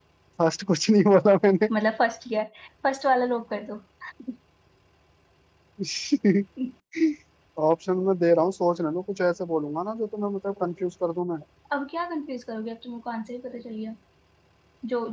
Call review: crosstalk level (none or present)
none